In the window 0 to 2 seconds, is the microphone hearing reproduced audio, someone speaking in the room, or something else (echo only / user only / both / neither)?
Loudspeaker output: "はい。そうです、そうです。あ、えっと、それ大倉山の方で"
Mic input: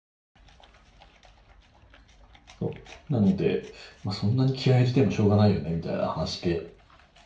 neither